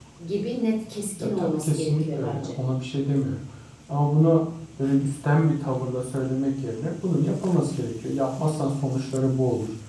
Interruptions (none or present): present